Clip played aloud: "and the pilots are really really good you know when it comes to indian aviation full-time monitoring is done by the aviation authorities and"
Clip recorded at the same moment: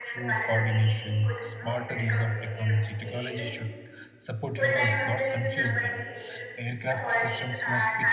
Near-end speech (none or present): present